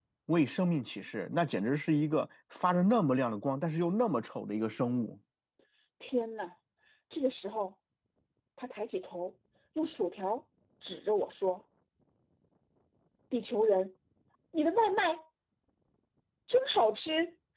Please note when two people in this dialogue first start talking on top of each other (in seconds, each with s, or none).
none